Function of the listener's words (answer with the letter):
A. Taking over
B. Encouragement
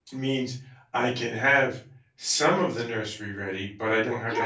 A